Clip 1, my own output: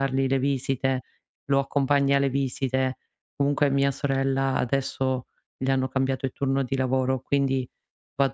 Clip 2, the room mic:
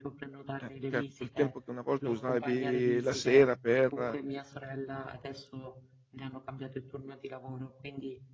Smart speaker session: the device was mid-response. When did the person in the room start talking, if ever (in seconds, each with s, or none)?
0.6 s